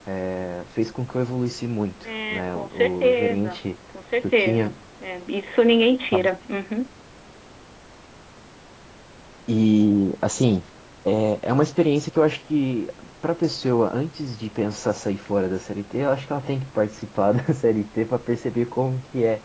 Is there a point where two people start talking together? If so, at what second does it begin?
2.3 s

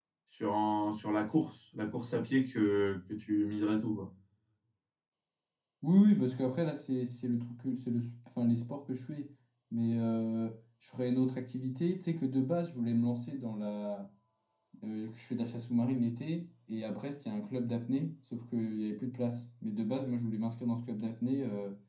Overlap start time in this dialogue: none

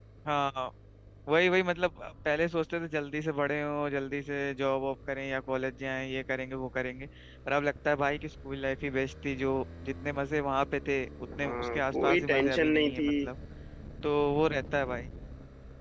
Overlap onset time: 11.2 s

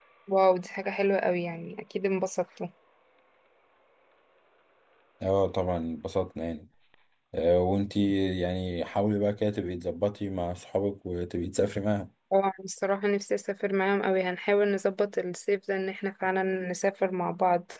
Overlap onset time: none

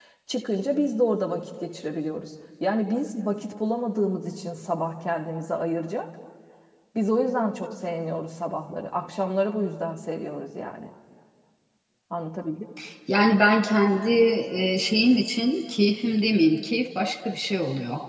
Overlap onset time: none

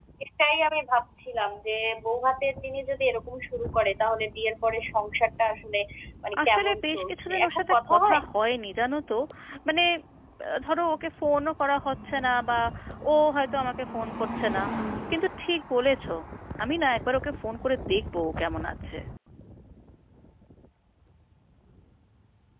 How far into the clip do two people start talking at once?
6.5 s

